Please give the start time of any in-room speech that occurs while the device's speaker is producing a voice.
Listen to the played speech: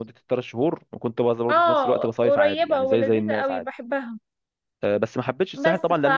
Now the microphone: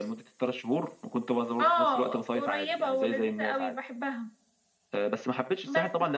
none

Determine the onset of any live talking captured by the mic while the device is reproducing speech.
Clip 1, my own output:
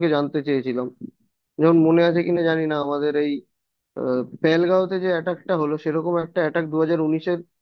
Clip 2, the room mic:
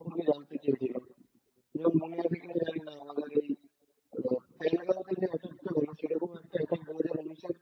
none

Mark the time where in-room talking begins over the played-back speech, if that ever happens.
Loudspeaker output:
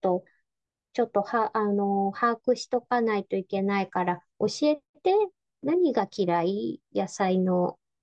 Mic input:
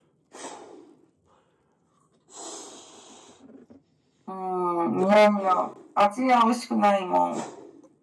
4.3 s

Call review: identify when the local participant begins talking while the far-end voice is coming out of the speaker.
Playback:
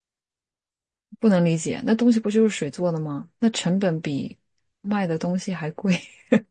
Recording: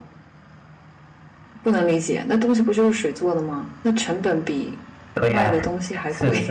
5.1 s

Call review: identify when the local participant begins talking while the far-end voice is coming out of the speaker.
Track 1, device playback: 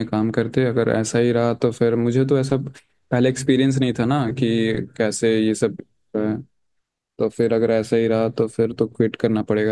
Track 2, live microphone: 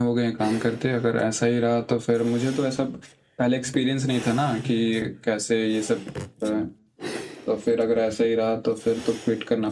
none

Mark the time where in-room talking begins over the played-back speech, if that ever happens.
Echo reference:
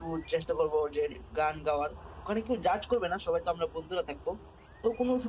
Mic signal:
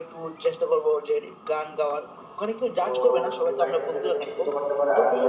2.8 s

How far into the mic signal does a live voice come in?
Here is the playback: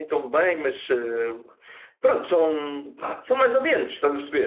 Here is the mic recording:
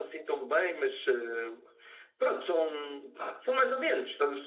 none

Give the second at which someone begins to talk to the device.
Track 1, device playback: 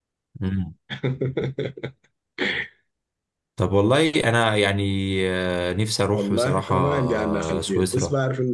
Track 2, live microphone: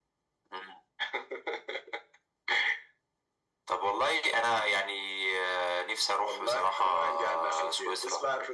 none

